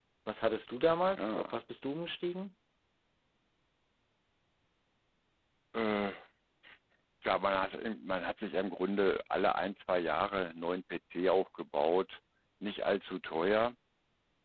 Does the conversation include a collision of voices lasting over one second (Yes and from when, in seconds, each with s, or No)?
No